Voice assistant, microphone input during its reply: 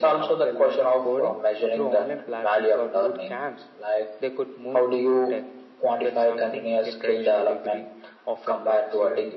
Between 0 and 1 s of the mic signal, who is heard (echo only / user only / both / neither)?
echo only